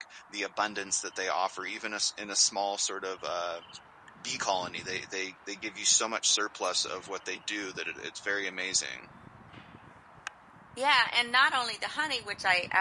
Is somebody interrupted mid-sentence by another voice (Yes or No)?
No